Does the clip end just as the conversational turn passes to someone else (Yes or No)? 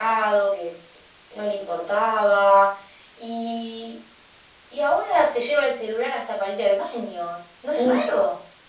Yes